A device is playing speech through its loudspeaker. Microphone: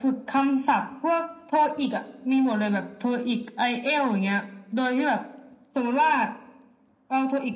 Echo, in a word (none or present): present